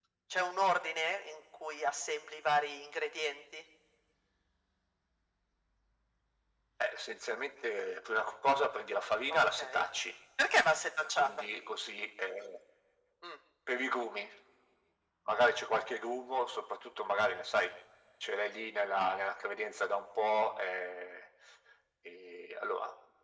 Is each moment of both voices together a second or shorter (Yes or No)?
Yes